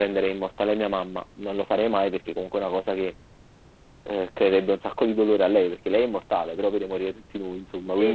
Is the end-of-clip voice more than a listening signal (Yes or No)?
Yes